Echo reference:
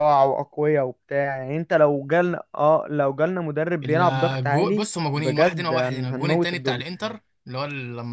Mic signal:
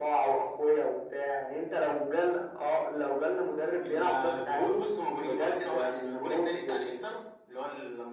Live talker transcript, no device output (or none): none